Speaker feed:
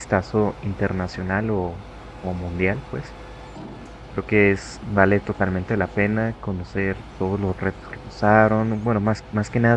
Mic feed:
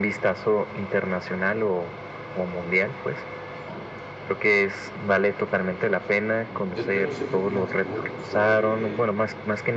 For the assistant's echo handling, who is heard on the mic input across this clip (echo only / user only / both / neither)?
both